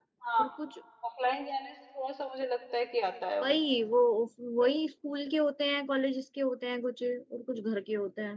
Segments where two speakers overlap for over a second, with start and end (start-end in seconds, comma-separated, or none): none